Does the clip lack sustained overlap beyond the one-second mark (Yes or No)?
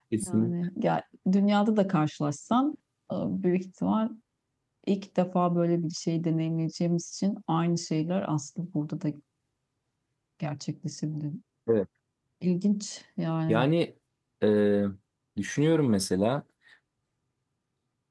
Yes